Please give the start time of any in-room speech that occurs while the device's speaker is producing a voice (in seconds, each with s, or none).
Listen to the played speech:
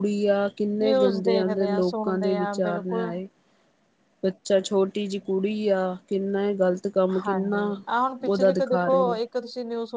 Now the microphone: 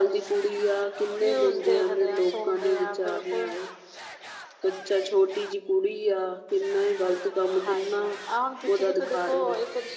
none